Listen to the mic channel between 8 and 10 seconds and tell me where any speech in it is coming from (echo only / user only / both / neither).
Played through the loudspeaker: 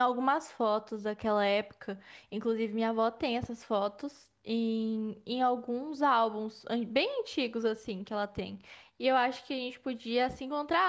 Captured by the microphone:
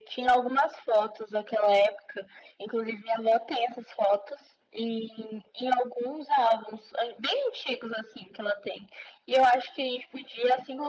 echo only